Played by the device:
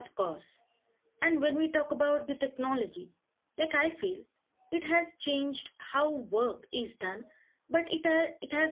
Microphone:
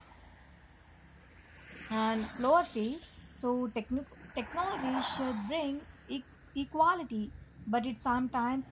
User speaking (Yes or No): Yes